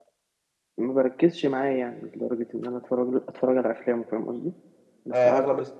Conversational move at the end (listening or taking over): taking over